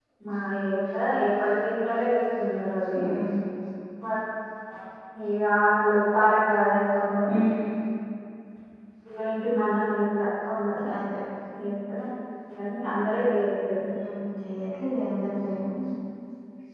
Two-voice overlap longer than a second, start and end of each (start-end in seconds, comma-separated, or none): none